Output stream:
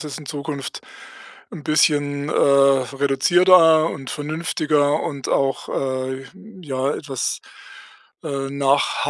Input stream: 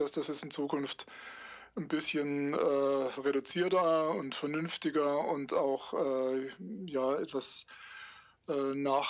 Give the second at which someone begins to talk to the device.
none

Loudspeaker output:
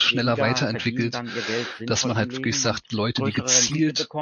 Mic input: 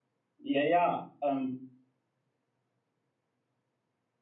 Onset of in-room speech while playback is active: 0.4 s

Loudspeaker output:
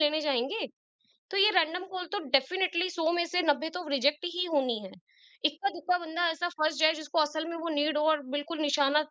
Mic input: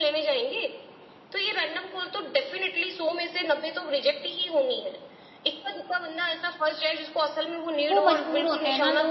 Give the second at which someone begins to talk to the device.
7.9 s

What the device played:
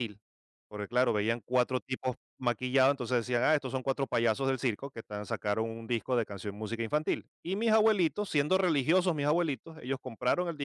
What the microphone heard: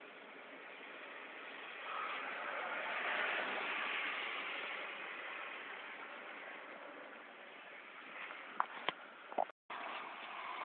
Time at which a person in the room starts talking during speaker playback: none

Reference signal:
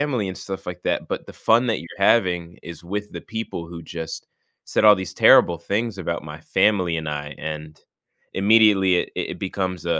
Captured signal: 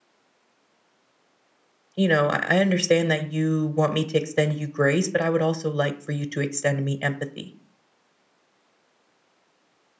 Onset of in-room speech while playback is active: 2.0 s

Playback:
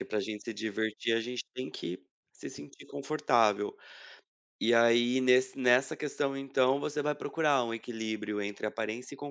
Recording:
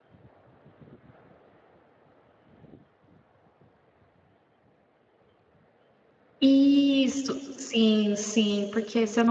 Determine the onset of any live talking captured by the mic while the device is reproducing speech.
6.4 s

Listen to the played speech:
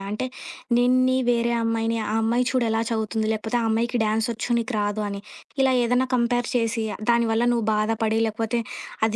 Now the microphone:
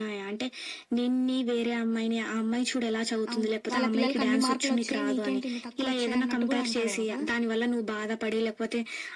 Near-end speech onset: 3.3 s

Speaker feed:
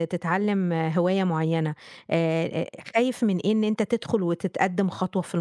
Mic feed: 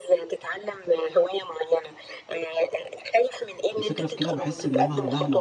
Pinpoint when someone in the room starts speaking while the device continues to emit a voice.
3.8 s

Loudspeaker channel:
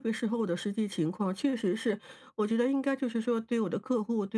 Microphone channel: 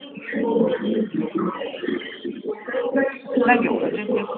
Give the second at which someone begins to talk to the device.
3.4 s

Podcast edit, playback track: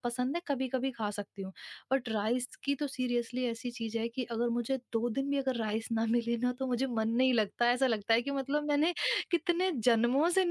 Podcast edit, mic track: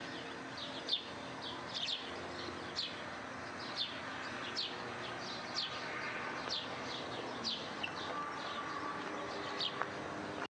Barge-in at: none

